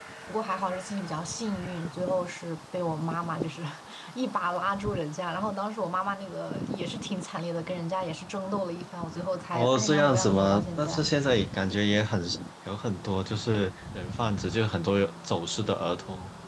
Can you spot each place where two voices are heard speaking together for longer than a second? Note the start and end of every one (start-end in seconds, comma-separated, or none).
9.5-11.0